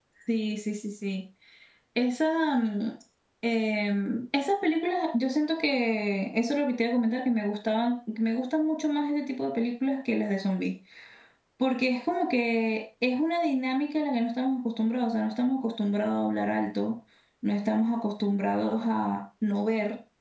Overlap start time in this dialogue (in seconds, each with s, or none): none